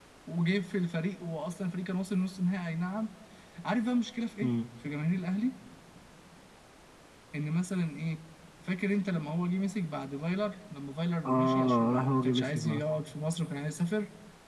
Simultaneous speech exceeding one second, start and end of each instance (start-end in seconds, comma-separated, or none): 11.2-12.8